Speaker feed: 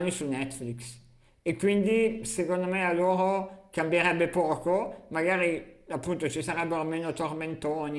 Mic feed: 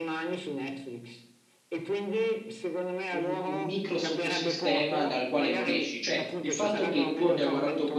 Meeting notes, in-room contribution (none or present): present